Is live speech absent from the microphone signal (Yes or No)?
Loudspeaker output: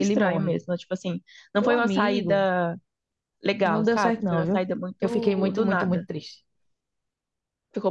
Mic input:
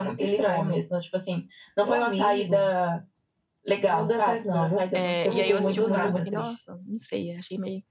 No